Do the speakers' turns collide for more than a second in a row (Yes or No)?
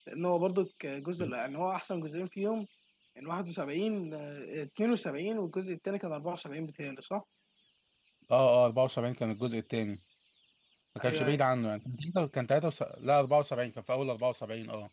No